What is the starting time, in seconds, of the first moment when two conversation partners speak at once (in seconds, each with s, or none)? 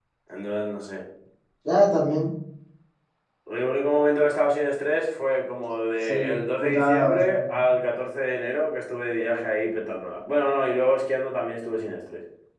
6.0 s